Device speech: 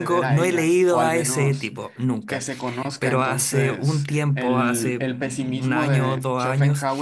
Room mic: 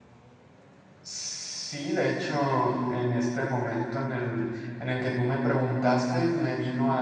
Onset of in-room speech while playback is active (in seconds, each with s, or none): 1.0 s